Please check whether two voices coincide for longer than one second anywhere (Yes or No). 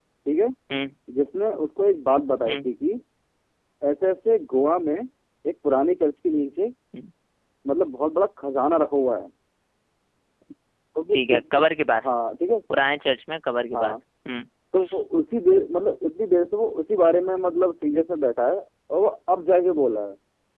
No